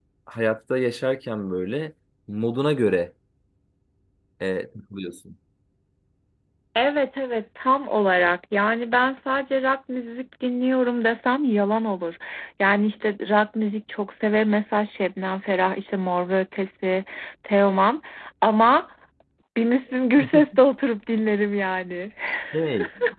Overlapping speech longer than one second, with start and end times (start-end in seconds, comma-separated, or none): none